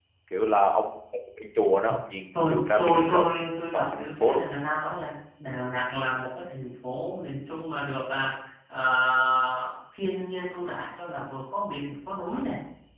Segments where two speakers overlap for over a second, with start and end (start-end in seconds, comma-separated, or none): 2.4-4.4